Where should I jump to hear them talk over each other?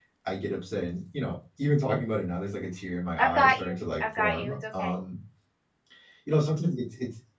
3.2 s

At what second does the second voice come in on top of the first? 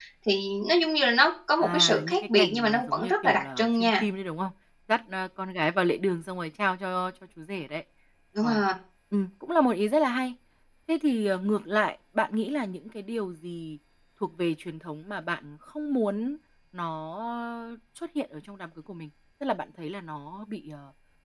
1.6 s

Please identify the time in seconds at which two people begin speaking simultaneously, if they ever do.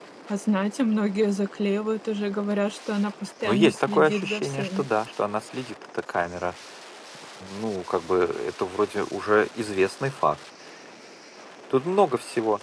3.4 s

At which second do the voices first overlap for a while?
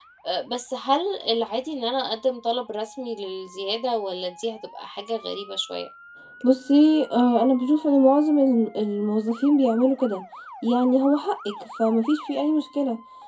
none

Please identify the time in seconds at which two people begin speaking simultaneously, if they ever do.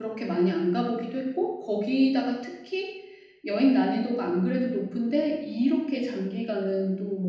none

